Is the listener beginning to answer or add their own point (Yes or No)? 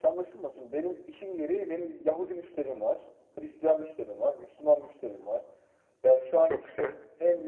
No